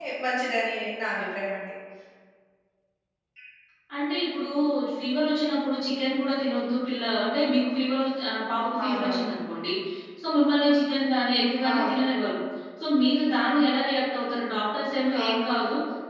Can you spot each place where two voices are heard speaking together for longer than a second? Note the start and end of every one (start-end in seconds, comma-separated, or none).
none